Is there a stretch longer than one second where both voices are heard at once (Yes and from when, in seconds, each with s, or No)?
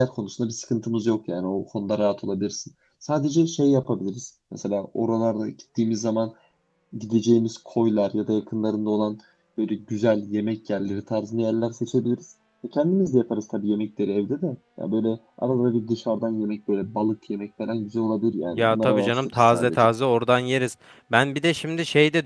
Yes, from 18.5 s